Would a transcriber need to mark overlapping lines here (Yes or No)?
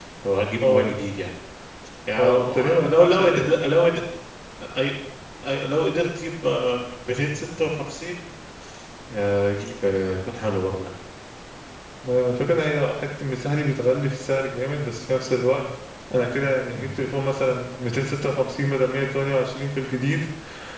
Yes